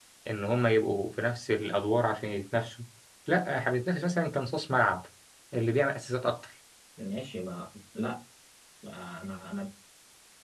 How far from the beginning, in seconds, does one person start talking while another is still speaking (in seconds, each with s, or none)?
none